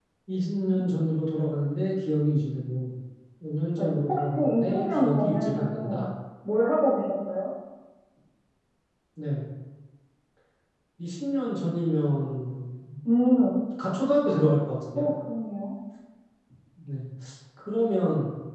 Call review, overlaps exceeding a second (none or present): present